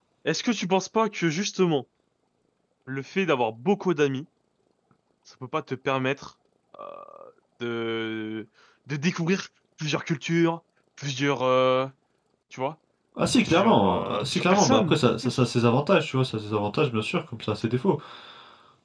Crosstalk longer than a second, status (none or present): present